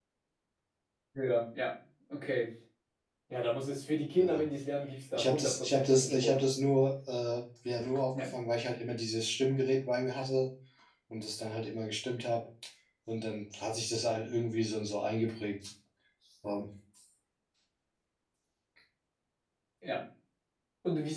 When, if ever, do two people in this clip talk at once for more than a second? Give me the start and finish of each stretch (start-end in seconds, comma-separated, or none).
5.2-6.4